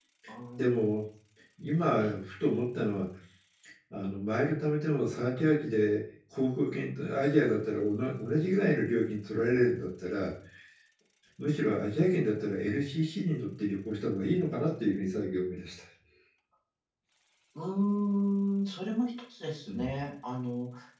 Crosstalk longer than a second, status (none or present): none